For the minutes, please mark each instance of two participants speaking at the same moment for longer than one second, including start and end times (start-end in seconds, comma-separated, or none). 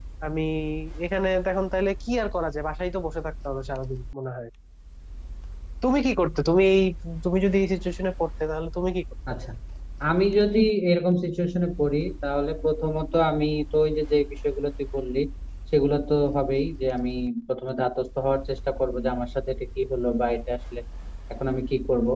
none